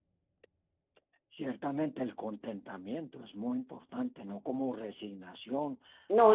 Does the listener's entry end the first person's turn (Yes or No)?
No